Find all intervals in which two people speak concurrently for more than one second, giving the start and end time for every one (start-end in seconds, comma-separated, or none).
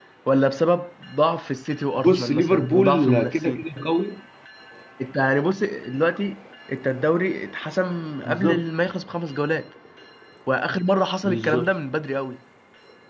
2.0-3.6